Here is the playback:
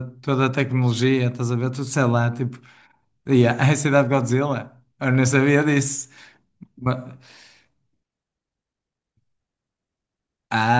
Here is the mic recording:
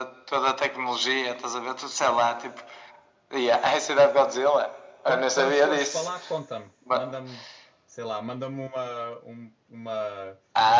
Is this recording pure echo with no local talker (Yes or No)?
No